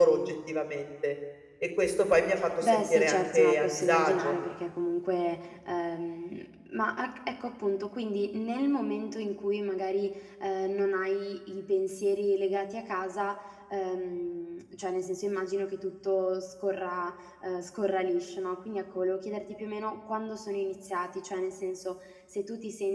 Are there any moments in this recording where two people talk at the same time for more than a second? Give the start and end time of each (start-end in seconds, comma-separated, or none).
2.6-4.4